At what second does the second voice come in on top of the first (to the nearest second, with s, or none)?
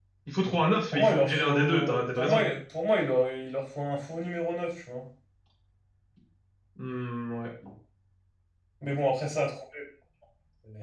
1 s